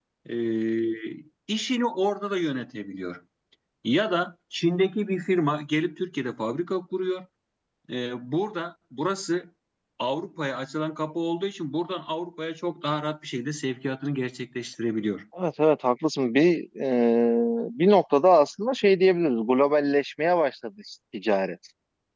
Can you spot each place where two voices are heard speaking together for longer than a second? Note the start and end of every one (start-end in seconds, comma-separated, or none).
none